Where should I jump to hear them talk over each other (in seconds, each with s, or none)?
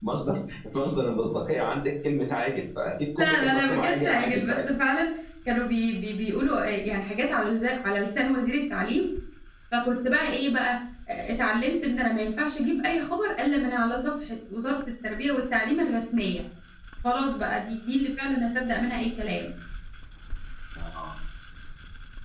3.2 s